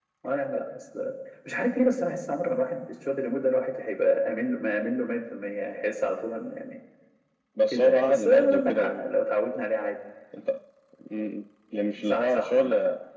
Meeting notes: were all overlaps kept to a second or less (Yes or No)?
No